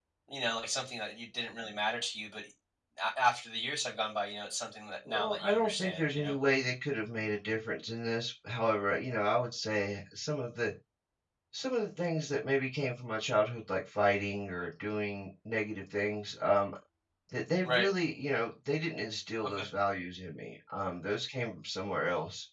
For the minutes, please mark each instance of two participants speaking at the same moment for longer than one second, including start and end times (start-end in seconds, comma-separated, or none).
5.1-6.4